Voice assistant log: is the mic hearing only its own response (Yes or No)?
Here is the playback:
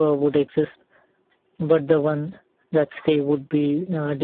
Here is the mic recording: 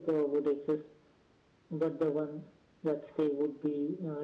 Yes